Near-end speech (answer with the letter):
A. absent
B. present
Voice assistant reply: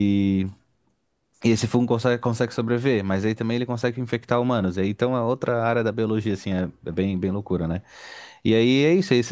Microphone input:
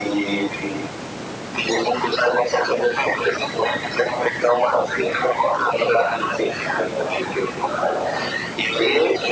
A